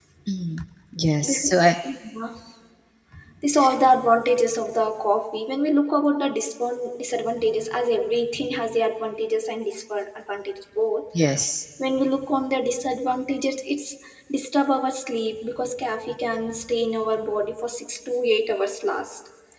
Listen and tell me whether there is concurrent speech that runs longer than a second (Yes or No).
No